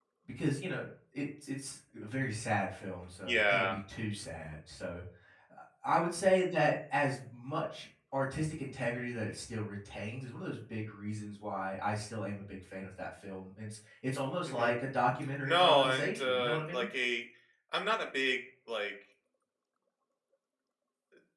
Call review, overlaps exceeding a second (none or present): present